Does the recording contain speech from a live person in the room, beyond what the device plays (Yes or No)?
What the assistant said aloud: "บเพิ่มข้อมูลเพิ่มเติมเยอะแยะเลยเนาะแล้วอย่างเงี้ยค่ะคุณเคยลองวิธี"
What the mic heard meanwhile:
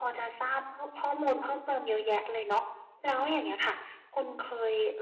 No